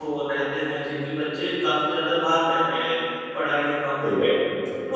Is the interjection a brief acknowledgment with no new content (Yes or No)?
Yes